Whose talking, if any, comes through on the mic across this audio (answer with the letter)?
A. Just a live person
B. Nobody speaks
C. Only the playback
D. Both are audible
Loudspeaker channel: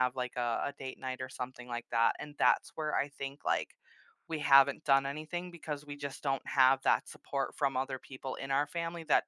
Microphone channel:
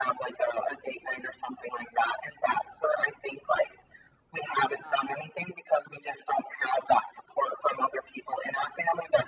D